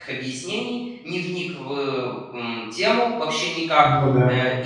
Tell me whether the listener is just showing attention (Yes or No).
Yes